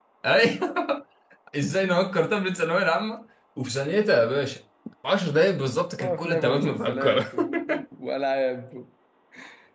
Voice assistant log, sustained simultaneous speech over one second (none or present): present